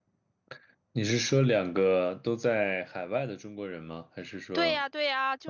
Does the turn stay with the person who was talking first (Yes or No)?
No